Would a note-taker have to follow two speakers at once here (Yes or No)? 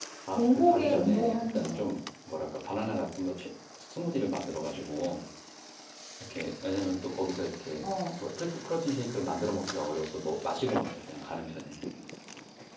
Yes